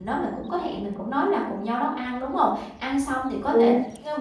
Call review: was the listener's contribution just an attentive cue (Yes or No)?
Yes